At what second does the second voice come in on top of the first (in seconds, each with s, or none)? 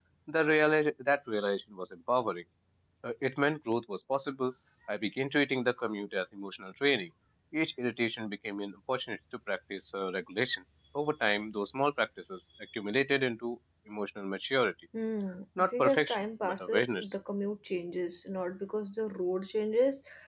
15.6 s